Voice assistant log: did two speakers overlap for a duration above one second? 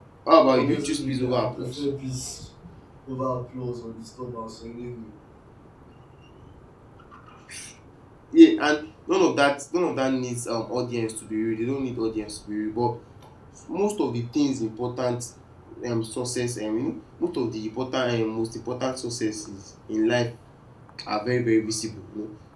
Yes, from 0.5 s

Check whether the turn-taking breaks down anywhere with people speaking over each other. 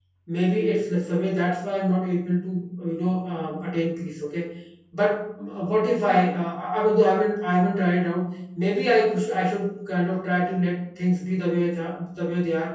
No

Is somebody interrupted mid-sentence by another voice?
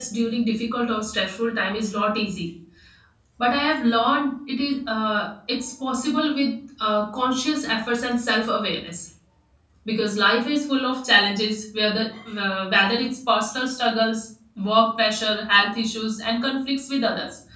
No

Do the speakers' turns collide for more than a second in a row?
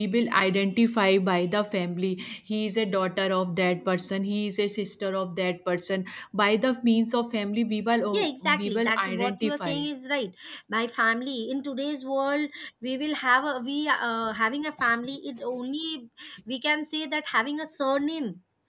Yes, from 8.1 s

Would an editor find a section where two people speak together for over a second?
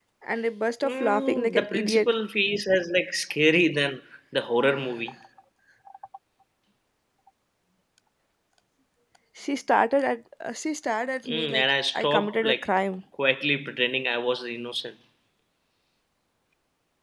Yes, from 0.8 s

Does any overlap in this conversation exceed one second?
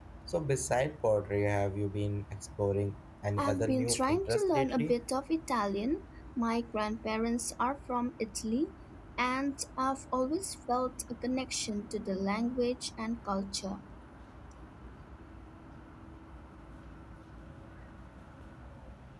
Yes, from 3.4 s

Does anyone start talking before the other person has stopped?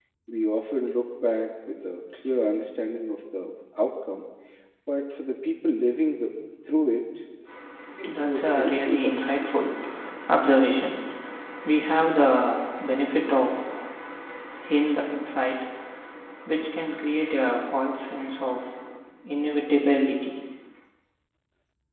Yes, from 8.1 s

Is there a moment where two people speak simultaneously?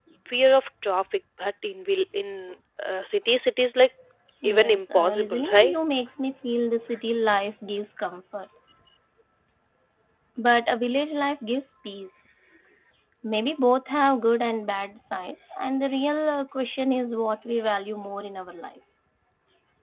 Yes, from 4.4 s

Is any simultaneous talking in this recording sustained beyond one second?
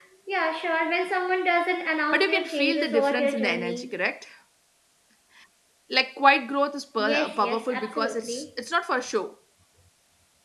Yes, from 2.1 s

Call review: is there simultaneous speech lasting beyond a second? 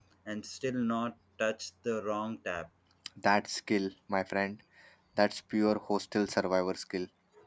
No

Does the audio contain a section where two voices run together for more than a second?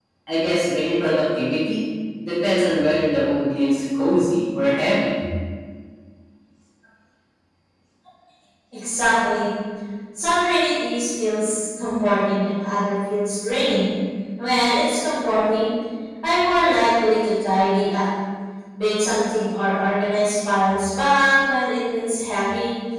No

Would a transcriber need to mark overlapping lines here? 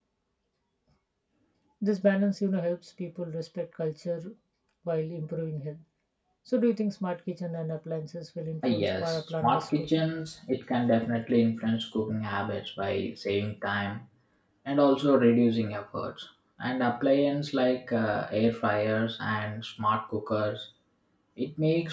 Yes, from 8.6 s

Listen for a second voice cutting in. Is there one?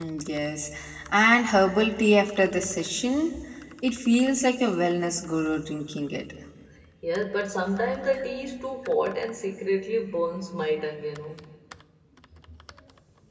No

